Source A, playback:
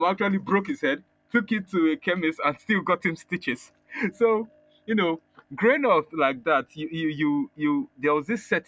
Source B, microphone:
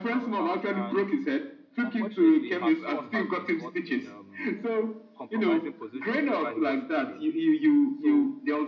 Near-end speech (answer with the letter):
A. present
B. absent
A